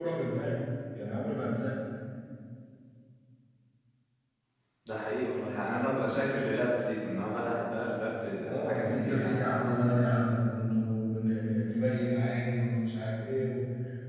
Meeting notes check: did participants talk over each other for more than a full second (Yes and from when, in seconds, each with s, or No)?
Yes, from 8.3 s